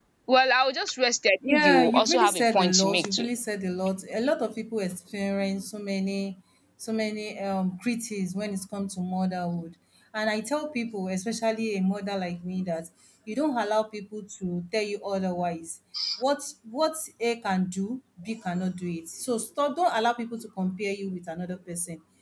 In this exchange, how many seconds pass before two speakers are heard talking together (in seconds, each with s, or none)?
1.4 s